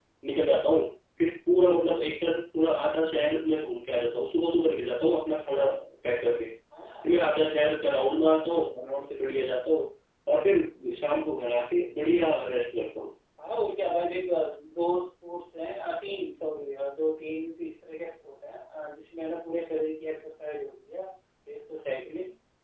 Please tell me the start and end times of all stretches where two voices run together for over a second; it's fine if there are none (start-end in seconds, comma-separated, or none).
none